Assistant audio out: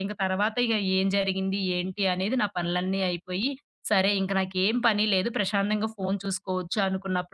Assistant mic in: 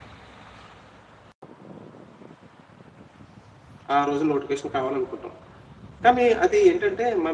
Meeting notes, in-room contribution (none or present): present